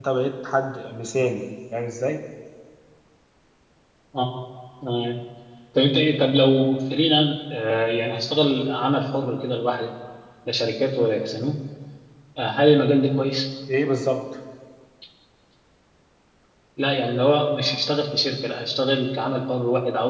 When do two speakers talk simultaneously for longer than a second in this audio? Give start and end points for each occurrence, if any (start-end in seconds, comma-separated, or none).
none